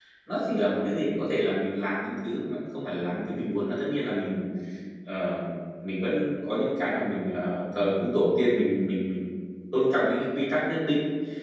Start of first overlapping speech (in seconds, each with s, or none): none